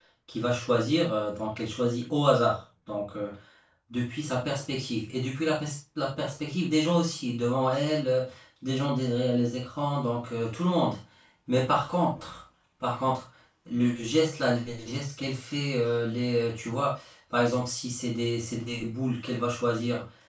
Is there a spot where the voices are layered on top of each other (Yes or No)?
No